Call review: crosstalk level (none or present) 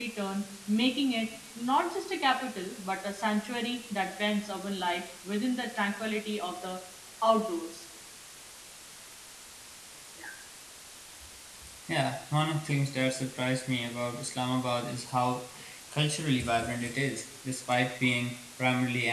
none